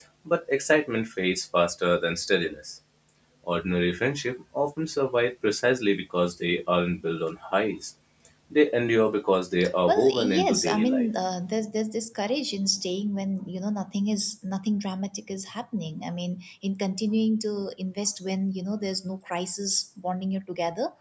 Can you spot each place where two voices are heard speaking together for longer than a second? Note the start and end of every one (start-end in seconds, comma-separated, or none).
9.8-11.1